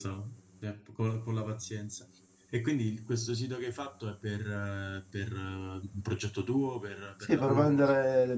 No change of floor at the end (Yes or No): No